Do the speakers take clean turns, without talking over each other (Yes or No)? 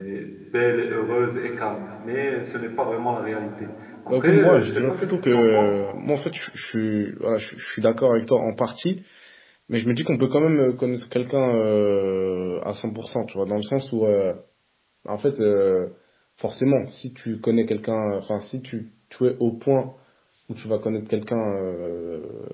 No